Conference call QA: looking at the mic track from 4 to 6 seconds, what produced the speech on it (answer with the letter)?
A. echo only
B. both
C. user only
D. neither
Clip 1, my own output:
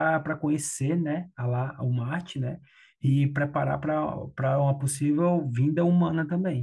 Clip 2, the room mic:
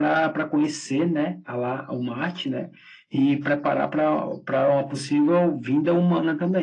A